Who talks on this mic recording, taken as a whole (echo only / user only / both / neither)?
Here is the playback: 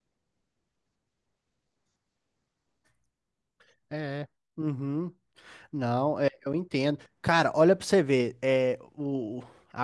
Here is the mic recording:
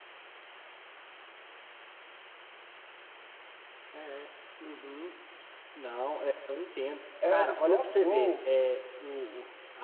both